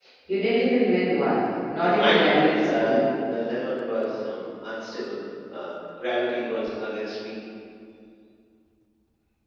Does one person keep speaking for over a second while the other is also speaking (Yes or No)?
Yes